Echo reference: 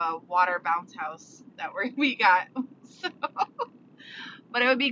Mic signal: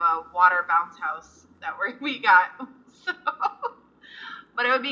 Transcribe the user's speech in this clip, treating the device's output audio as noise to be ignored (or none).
none